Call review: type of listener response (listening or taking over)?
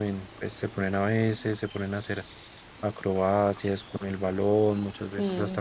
taking over